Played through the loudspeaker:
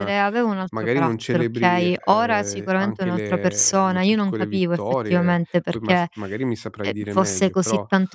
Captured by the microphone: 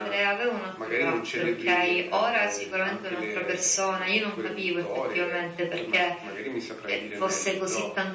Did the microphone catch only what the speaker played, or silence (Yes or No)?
Yes